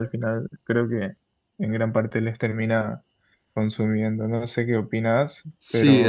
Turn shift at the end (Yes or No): Yes